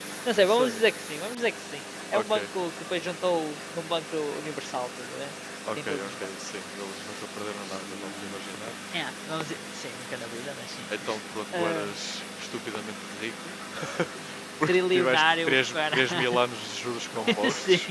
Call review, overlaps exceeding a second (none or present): present